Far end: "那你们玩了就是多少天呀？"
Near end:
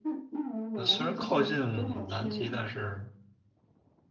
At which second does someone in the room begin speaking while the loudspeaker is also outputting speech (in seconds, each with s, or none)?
0.7 s